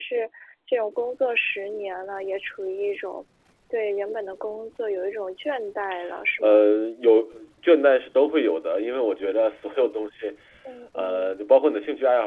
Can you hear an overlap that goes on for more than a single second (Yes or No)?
No